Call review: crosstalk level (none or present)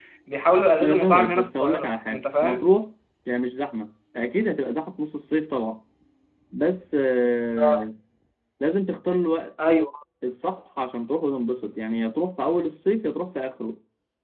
present